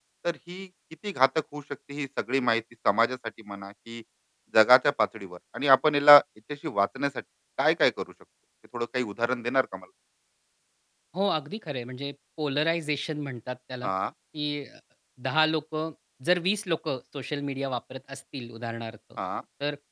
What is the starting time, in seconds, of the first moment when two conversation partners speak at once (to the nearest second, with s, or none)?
none